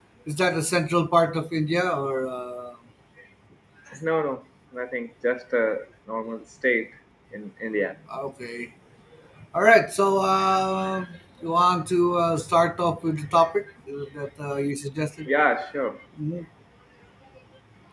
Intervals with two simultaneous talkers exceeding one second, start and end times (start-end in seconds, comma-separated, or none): none